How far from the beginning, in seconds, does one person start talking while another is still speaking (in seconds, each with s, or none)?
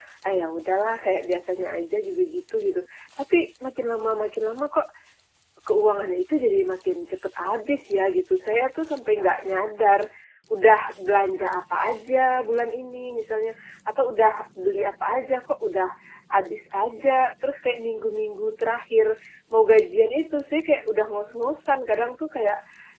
none